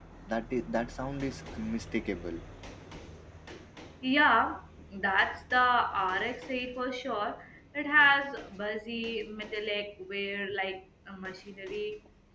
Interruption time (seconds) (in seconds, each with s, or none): none